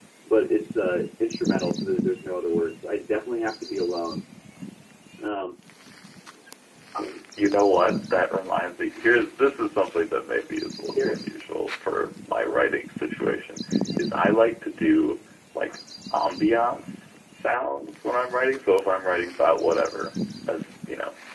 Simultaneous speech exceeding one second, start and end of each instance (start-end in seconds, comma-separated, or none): none